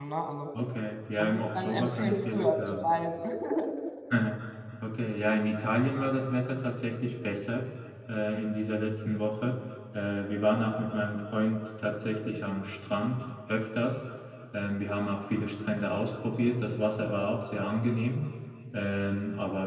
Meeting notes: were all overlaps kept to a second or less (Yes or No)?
No